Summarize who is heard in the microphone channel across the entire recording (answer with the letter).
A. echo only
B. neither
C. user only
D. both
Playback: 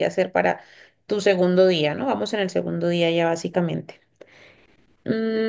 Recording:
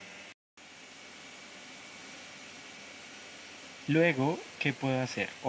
C